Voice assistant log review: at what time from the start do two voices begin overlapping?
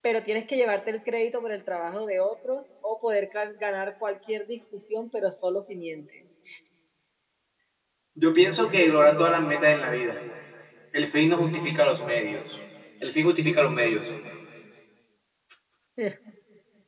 none

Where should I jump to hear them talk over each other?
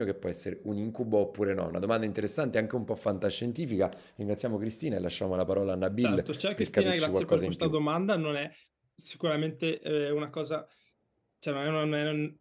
6 s

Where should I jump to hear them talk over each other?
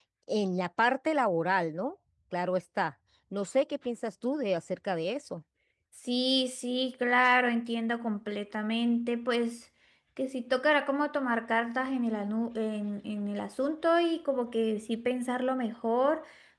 none

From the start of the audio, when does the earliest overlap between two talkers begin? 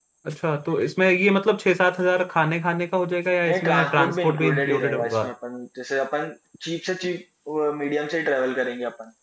3 s

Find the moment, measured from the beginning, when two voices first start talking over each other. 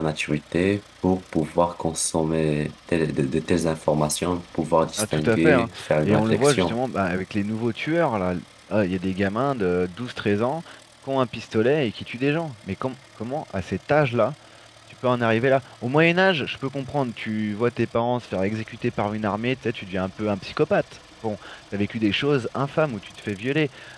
5 s

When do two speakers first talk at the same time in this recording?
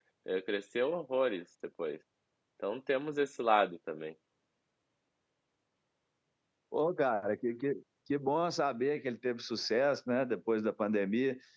none

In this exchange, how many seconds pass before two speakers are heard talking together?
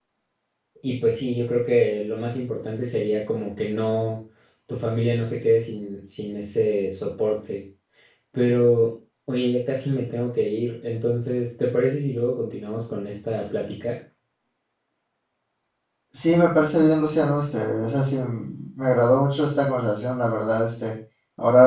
none

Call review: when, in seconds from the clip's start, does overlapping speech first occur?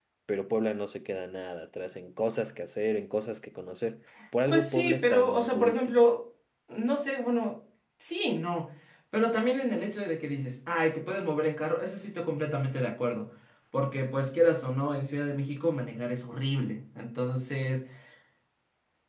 4 s

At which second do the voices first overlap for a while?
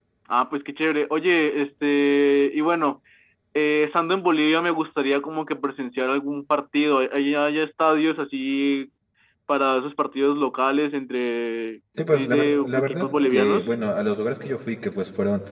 12 s

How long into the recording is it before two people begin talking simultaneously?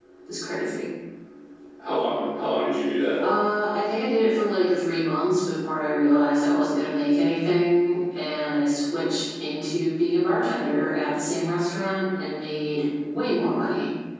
none

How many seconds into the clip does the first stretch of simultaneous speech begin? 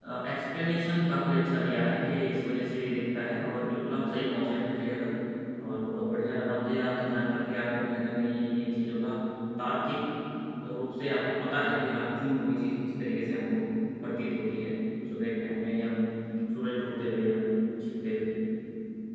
none

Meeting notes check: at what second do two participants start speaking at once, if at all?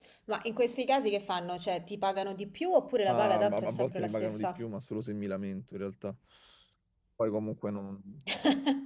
3 s

